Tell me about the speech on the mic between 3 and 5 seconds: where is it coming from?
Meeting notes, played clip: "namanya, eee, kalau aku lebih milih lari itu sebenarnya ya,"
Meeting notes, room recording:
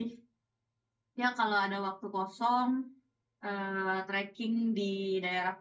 user only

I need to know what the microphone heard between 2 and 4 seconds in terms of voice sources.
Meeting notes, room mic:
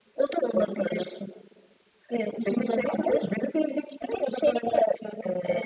echo only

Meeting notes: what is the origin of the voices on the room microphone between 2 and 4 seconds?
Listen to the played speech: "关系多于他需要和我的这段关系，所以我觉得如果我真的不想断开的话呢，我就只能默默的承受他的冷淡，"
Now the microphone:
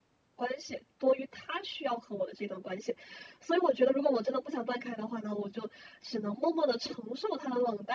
echo only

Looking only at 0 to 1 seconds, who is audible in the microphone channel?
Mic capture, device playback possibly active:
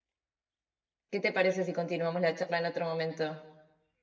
neither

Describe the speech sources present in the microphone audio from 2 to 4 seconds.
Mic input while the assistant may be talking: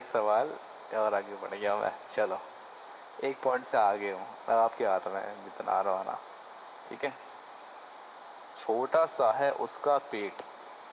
echo only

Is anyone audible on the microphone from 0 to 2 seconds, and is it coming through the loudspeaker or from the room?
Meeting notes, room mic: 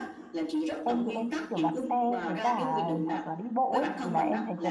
both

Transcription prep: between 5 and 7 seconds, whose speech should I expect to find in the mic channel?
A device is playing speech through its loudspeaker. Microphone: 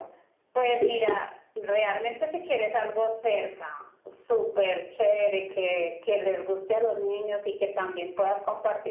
echo only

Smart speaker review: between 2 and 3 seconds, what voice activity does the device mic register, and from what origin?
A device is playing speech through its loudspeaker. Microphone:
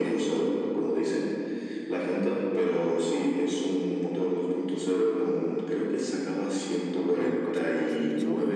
echo only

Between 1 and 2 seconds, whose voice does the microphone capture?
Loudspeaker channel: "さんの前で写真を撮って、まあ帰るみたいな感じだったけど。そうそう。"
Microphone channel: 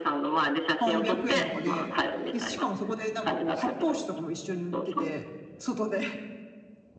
both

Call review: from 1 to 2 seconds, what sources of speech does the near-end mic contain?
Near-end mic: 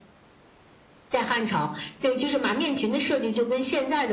echo only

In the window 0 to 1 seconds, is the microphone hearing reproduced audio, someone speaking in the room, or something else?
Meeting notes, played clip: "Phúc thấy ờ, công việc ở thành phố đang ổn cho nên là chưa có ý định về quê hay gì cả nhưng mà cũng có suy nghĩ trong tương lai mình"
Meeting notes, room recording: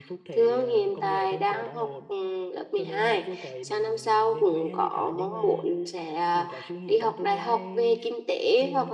both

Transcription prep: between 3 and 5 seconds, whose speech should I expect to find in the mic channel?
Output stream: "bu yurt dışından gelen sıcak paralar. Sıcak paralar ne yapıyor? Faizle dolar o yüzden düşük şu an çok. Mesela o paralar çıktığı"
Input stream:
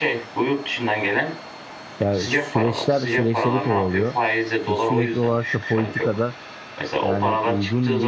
both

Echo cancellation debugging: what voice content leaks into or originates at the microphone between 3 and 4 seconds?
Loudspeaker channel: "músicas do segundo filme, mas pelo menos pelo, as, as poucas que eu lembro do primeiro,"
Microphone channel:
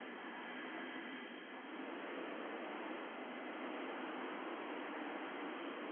neither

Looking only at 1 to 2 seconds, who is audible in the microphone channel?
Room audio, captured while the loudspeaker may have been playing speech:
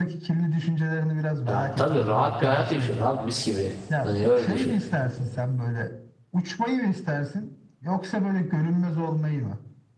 both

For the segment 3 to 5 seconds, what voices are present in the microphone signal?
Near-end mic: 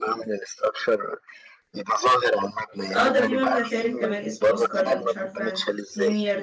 both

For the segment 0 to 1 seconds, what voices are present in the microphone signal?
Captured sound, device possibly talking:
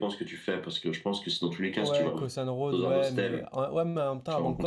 echo only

